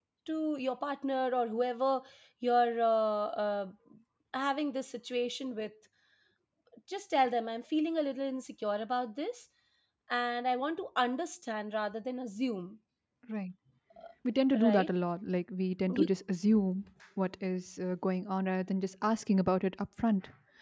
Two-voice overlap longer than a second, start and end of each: none

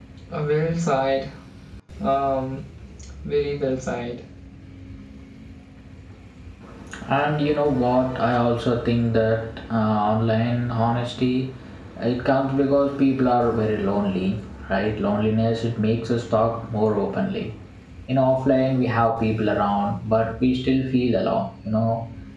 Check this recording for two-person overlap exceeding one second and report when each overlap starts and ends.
none

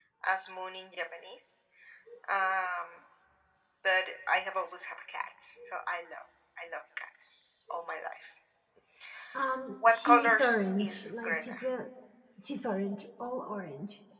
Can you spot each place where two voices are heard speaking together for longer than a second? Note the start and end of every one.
9.9-11.5

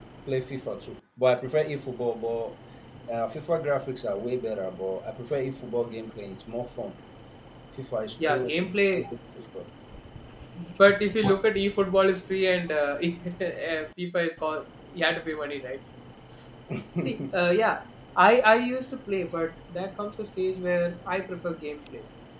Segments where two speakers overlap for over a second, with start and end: none

